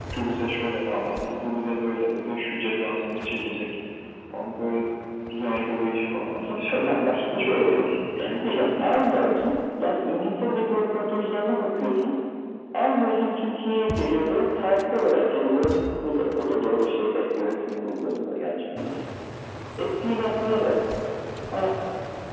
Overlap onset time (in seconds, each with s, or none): 6.5 s